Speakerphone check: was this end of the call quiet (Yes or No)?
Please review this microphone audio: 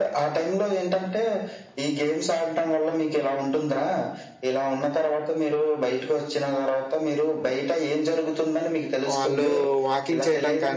No